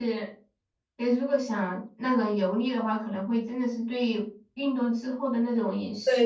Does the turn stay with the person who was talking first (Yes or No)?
No